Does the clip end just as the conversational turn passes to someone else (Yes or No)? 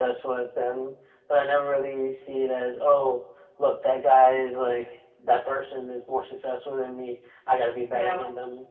No